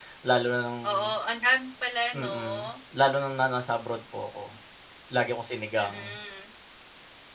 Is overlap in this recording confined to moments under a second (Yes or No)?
Yes